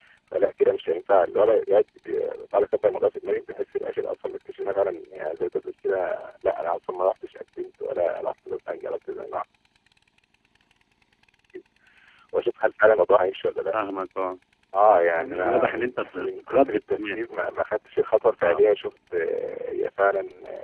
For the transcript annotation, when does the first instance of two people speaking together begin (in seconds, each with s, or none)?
15.1 s